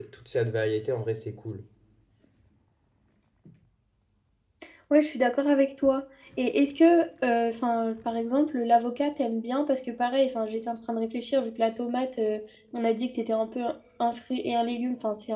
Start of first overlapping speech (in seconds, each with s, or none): none